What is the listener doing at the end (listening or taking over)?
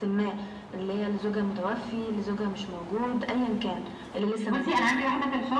taking over